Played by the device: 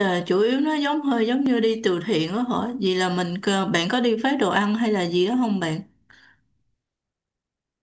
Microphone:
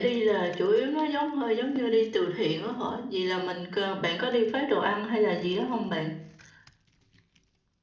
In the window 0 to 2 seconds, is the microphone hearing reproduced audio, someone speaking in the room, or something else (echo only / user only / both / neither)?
echo only